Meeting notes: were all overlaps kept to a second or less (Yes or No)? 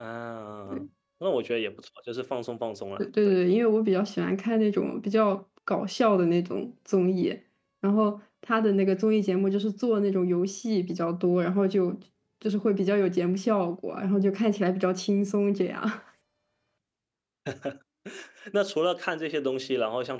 Yes